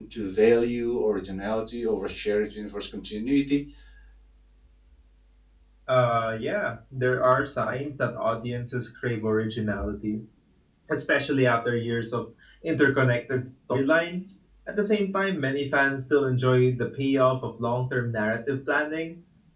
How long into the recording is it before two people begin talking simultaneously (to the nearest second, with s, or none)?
none